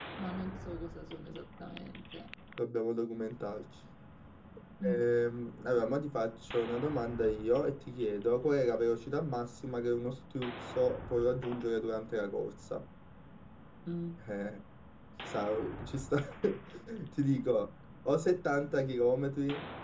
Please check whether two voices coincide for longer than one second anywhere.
No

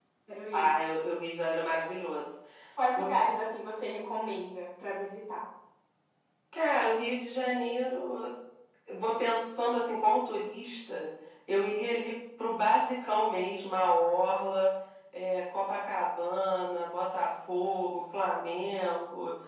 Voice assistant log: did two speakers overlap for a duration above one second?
No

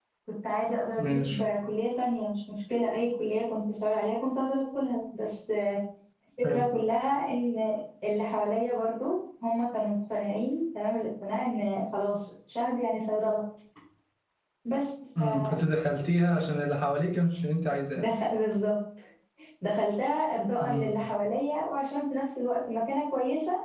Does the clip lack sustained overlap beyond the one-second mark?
Yes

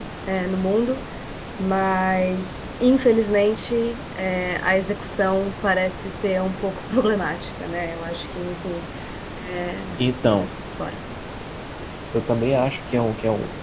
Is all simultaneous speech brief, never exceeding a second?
Yes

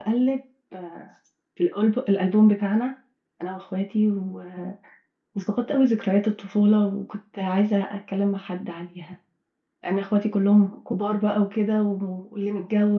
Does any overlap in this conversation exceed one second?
No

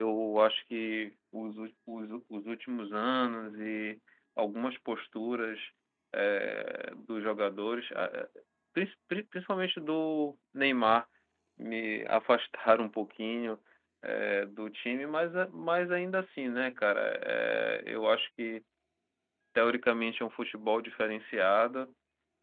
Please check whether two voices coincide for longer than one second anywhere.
No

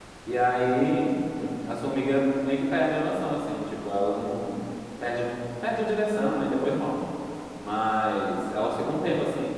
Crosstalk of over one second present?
No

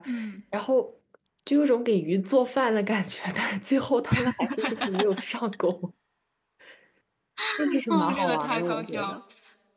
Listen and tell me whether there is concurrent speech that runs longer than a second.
Yes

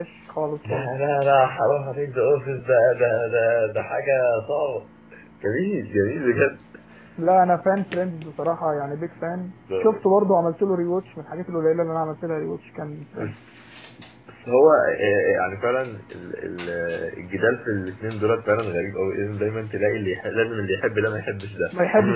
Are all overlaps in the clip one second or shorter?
Yes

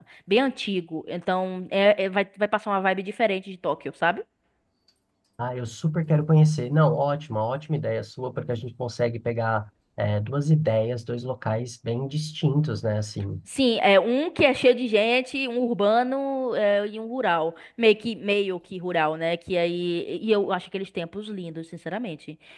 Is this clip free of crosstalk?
Yes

